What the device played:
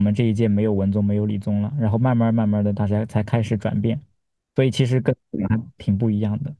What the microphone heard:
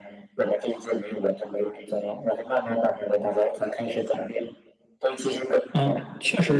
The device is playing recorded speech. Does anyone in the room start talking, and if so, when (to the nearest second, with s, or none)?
6 s